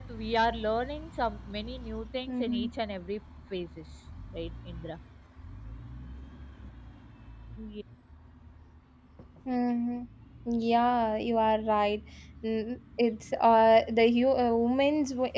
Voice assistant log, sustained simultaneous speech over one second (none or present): none